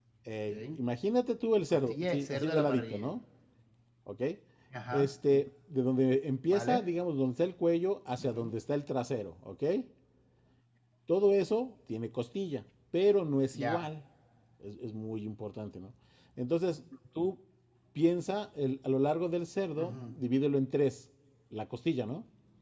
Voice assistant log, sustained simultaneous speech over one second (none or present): present